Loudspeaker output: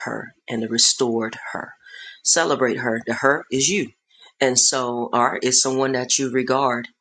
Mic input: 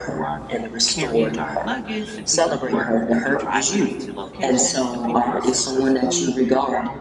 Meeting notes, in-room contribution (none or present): present